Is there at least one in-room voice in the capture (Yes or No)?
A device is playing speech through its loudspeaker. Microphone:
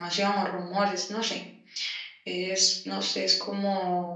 Yes